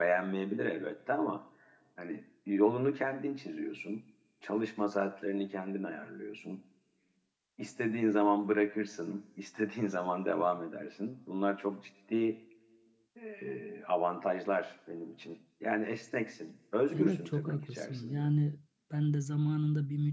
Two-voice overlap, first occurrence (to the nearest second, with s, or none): 17 s